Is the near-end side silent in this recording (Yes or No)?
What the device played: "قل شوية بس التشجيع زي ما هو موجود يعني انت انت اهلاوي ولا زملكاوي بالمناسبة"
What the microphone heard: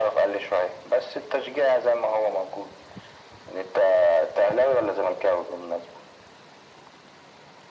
Yes